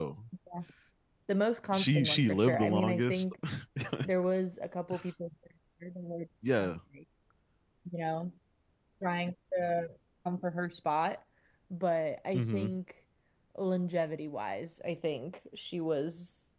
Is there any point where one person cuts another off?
Yes, from 1.7 s

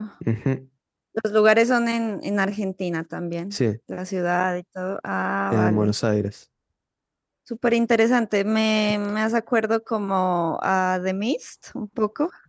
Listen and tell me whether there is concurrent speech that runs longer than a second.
No

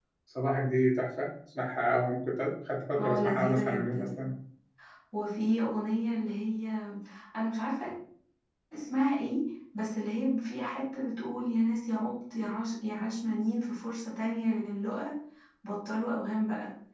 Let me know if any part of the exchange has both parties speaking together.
Yes, from 3.0 s

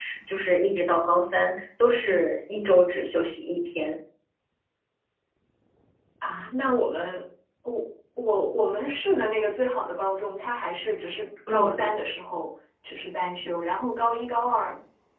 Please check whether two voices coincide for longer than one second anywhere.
No

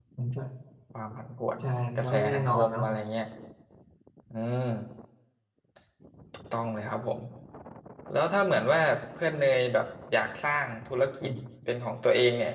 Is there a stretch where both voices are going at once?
Yes, from 1.6 s

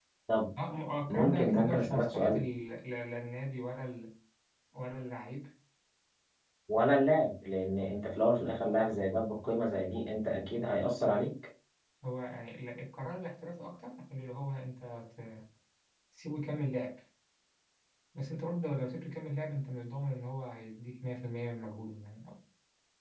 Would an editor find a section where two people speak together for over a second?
Yes, from 1.1 s

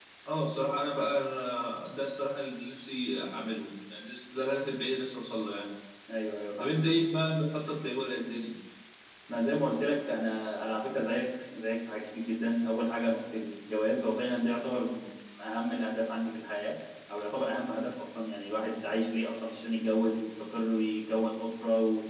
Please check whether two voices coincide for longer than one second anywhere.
No

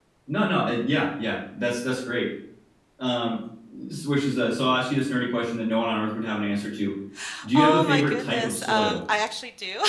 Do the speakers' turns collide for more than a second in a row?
Yes, from 7.5 s

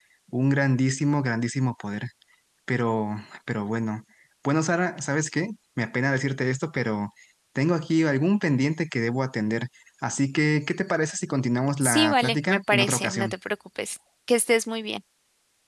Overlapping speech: Yes, from 11.8 s

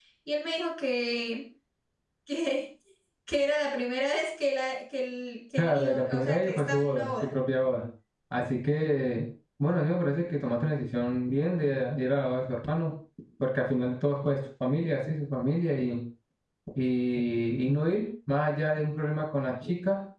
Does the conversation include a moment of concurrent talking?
Yes, from 5.6 s

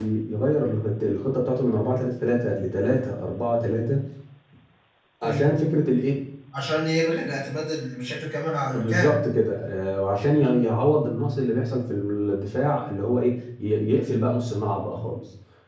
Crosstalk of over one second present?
No

